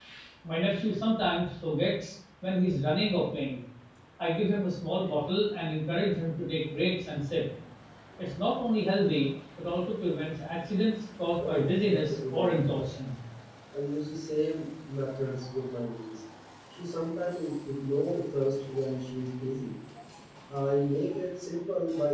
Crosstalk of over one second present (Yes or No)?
Yes